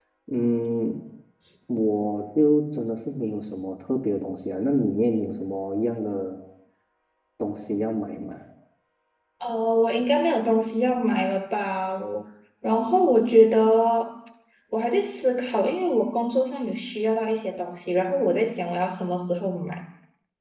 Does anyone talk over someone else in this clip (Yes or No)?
No